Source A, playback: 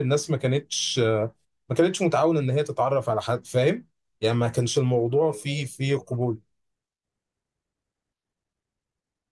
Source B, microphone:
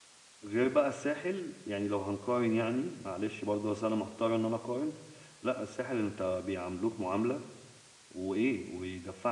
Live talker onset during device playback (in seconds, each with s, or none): 0.4 s